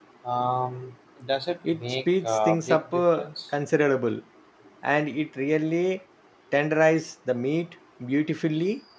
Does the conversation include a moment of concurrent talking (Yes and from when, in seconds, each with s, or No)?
Yes, from 1.6 s